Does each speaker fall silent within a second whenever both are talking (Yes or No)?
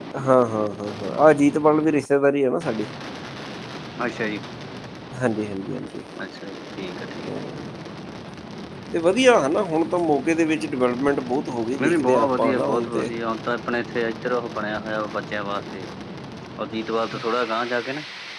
No